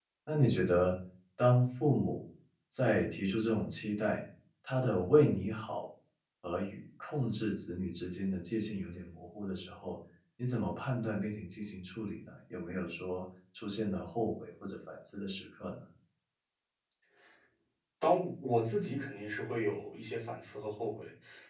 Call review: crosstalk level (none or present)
none